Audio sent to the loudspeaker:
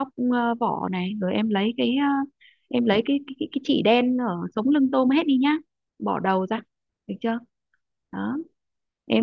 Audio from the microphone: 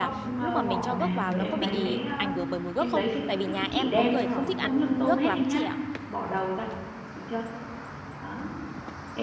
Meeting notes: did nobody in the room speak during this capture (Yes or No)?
No